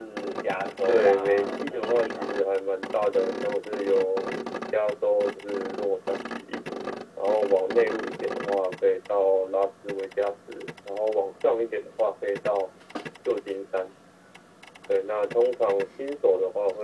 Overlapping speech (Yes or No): Yes